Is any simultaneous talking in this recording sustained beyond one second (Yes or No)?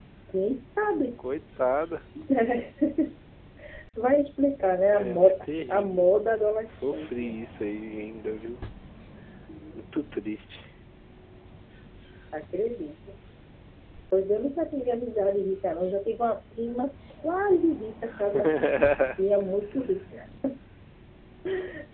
Yes